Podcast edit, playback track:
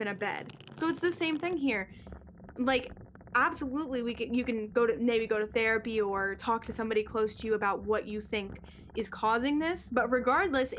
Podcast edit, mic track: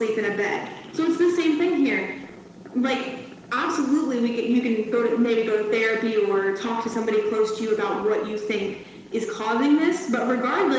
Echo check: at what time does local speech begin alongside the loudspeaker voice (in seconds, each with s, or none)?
none